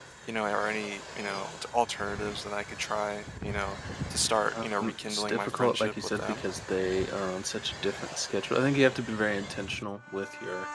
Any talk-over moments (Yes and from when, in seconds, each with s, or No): Yes, from 4.5 s